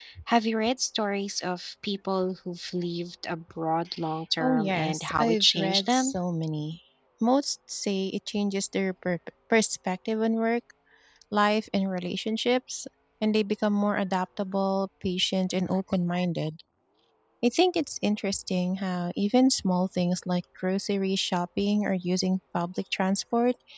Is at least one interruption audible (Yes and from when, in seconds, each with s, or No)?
Yes, from 4.4 s